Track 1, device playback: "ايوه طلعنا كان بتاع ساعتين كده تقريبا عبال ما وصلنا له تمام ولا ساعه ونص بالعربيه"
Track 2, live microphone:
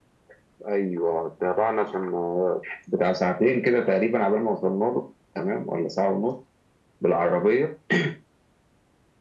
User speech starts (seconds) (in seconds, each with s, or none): none